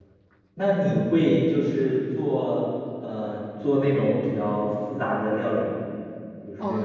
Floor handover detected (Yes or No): Yes